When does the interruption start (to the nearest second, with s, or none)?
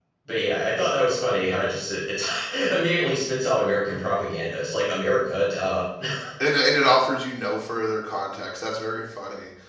none